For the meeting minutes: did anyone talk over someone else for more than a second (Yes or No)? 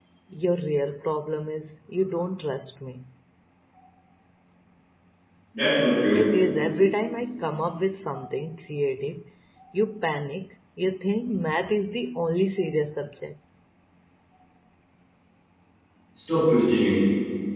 No